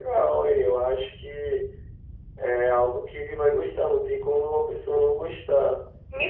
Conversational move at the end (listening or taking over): taking over